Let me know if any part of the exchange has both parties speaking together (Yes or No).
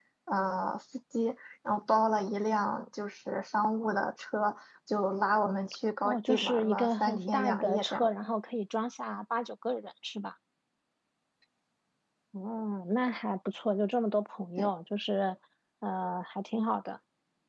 Yes